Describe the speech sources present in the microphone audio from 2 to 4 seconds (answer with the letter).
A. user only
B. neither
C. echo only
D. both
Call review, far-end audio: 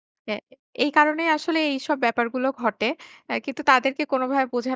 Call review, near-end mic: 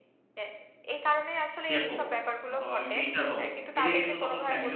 D